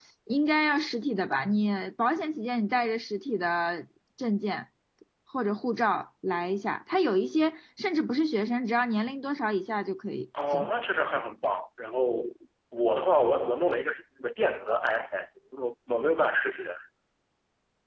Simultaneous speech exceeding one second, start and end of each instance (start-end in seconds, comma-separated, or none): none